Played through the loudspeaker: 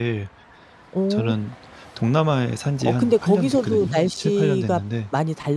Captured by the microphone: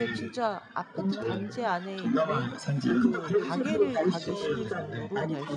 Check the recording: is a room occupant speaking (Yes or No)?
Yes